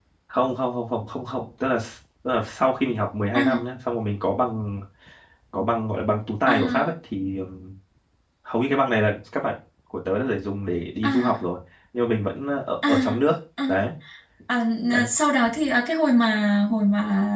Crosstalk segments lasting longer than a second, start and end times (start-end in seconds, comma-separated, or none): none